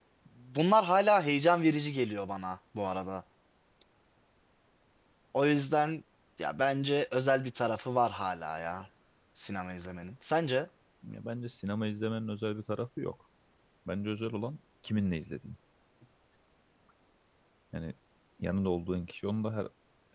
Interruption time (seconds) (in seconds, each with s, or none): none